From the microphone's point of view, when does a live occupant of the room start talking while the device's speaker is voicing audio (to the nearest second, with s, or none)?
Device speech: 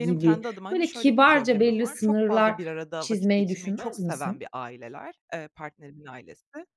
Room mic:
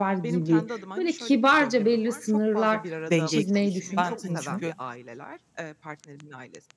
3 s